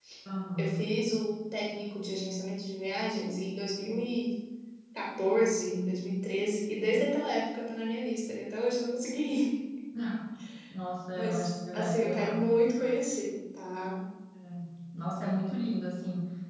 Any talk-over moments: Yes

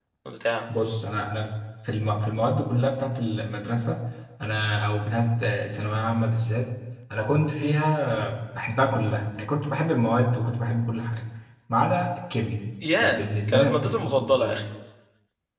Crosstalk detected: Yes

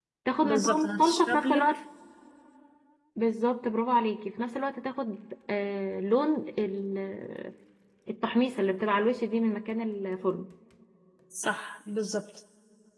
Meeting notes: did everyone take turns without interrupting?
No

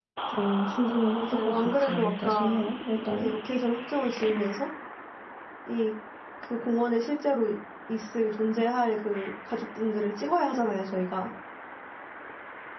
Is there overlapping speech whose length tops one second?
Yes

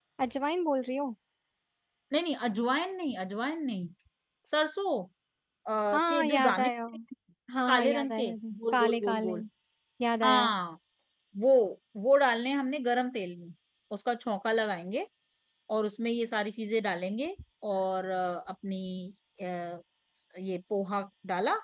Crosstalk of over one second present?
Yes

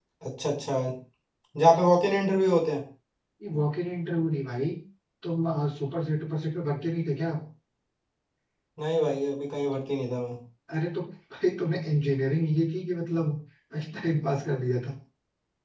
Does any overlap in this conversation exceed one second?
No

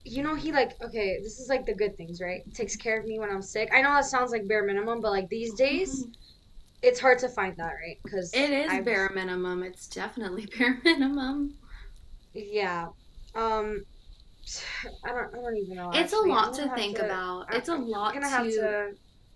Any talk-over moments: Yes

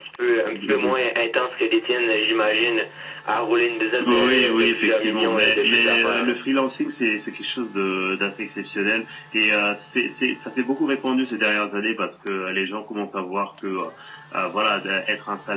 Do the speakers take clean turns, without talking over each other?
No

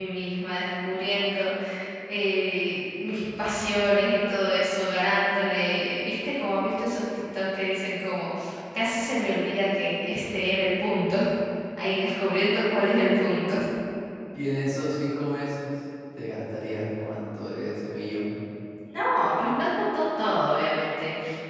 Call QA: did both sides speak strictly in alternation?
Yes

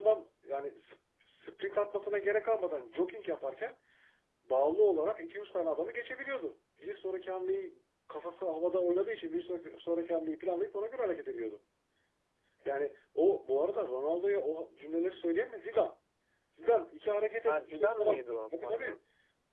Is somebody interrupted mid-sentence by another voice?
Yes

